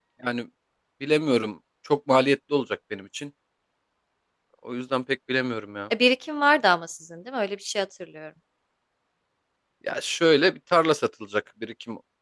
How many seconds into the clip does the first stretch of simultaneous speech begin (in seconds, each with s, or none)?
none